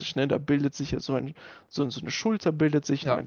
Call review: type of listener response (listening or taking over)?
listening